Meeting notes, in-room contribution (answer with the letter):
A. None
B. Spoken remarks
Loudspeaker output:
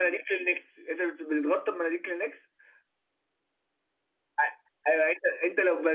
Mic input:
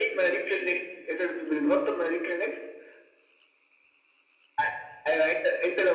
A